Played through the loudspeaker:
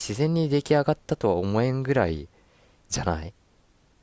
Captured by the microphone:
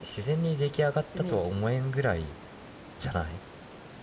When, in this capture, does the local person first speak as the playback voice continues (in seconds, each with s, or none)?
1.1 s